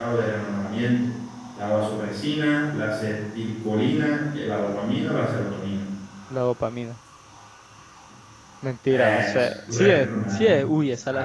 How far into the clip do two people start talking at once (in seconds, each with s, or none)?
8.9 s